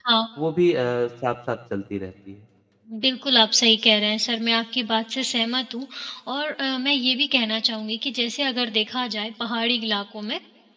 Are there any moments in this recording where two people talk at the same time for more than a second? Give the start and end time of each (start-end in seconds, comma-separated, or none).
none